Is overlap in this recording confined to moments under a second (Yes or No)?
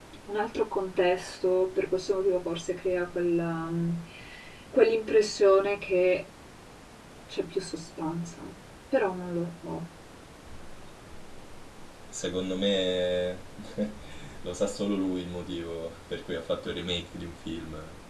Yes